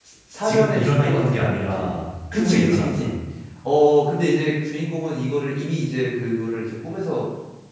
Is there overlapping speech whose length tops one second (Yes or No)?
Yes